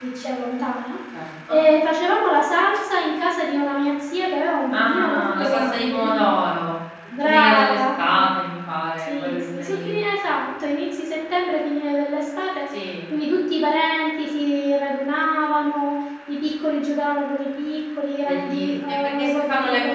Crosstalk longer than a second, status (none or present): present